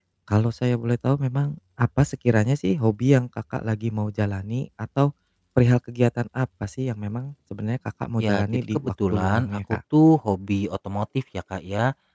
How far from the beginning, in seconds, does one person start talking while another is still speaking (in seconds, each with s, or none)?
8.2 s